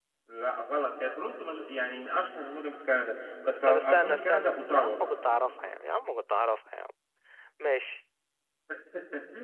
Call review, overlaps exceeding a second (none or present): present